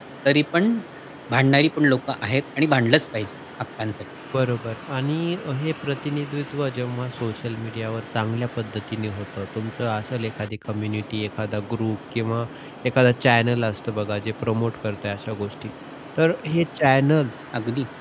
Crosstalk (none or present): none